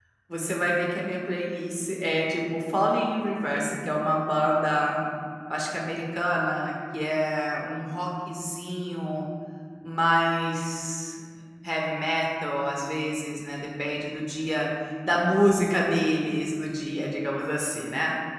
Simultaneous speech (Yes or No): No